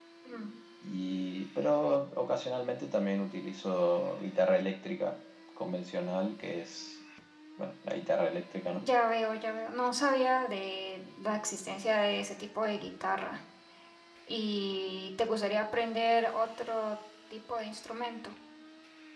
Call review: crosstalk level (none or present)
none